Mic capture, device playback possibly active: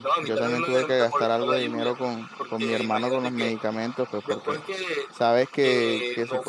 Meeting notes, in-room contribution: present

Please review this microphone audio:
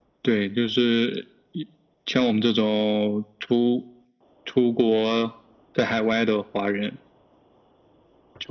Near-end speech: none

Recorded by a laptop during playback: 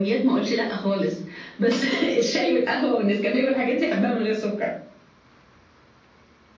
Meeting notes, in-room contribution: none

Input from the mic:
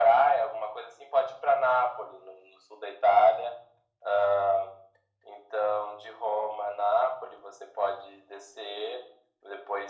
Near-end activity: none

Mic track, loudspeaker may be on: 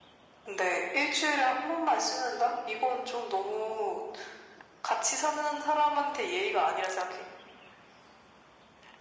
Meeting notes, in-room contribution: none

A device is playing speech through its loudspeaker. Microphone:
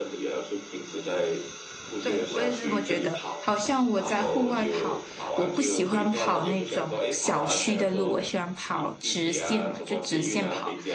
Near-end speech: present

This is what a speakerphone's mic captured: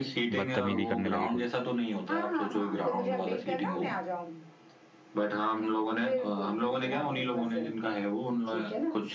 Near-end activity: present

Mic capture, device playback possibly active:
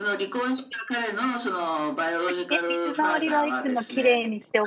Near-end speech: present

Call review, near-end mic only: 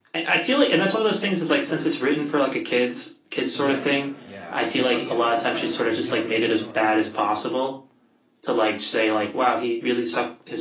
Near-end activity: present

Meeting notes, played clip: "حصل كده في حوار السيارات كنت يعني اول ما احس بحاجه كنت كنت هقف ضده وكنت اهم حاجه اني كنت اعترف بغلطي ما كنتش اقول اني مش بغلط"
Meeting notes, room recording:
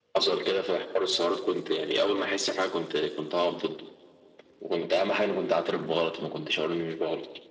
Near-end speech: none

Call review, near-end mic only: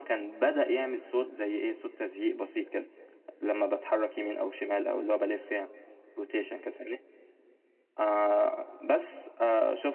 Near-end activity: none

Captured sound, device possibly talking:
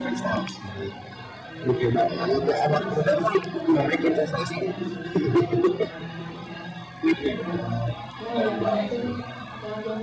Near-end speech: present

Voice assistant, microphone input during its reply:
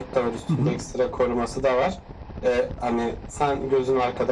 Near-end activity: present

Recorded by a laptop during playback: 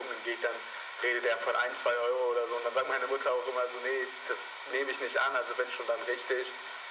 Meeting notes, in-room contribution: none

